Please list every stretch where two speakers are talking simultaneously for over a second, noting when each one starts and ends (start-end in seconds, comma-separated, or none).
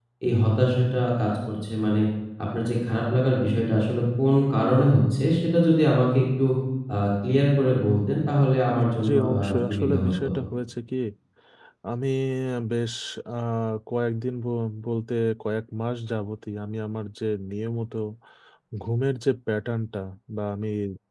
9.0-10.3